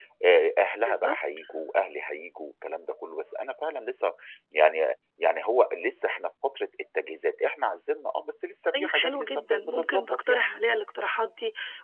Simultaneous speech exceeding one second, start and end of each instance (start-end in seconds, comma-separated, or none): 8.7-10.5